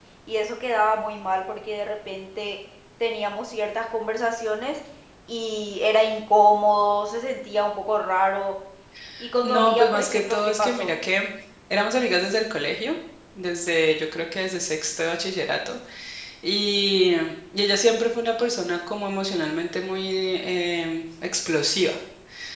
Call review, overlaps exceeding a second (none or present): present